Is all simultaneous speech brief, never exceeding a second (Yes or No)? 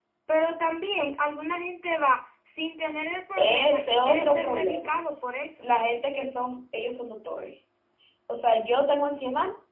No